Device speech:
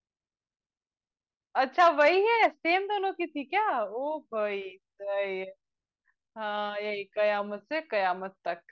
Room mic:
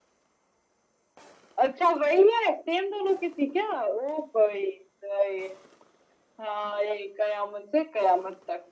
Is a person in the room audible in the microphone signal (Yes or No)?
No